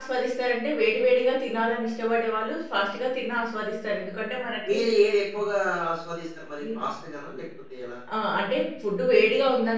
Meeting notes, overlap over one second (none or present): none